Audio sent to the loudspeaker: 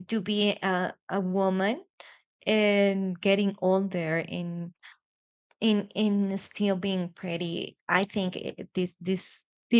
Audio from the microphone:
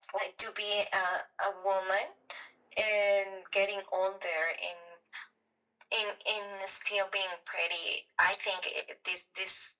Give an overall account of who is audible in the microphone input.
echo only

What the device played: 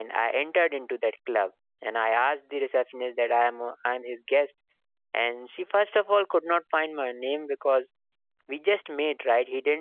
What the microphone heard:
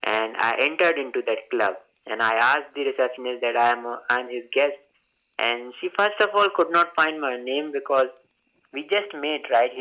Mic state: echo only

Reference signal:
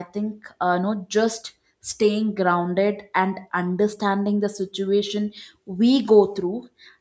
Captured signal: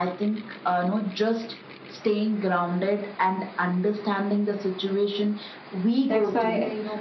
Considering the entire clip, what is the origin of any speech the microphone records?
both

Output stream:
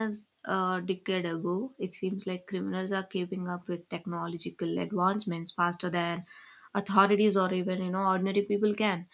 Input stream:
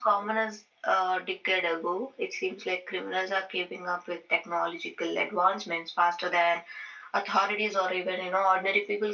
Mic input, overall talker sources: echo only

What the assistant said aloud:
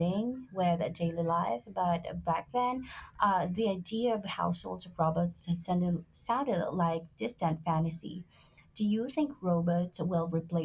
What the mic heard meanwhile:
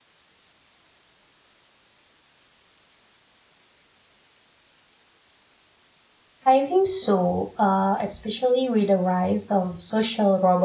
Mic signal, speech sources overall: user only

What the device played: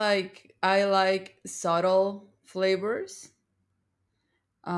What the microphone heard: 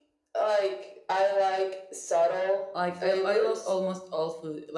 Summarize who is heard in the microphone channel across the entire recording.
both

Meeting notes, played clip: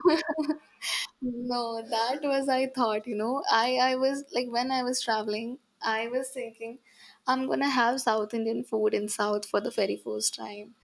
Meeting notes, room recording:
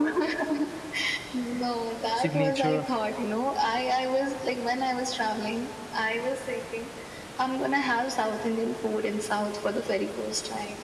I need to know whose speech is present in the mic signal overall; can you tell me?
both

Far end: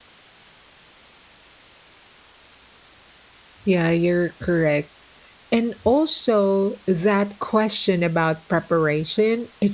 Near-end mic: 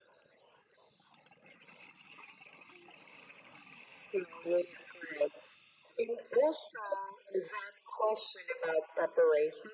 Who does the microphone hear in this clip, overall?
echo only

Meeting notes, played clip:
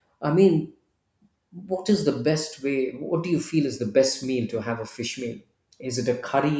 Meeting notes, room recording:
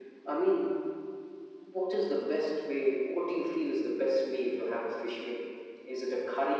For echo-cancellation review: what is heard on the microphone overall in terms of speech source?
echo only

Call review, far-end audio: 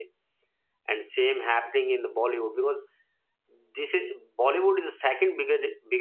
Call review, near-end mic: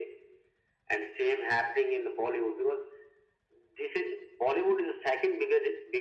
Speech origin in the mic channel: echo only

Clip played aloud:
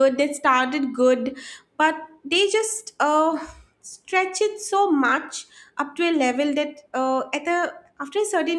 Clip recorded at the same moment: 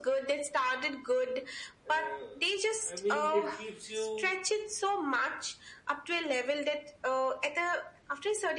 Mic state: both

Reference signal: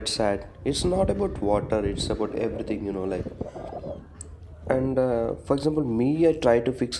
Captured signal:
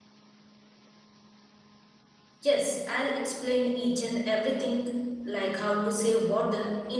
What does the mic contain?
user only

